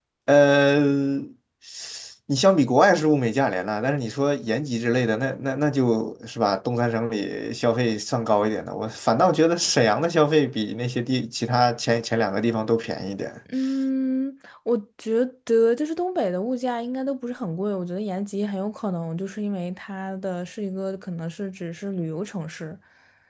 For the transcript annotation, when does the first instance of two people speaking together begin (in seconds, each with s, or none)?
none